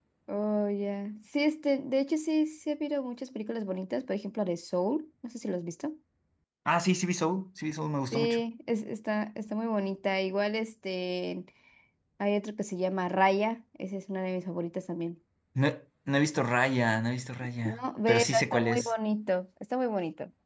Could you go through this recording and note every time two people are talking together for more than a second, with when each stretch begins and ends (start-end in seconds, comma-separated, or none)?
17.6-18.9